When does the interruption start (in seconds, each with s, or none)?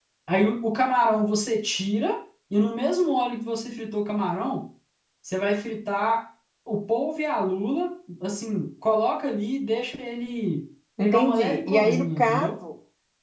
11.0 s